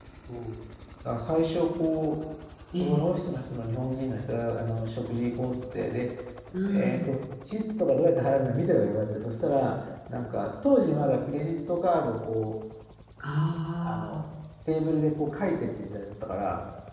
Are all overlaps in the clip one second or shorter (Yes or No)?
Yes